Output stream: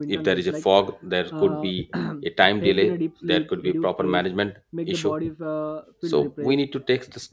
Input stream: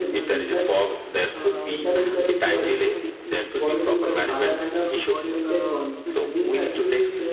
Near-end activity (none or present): present